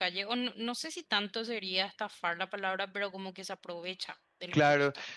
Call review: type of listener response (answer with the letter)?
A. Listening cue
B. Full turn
B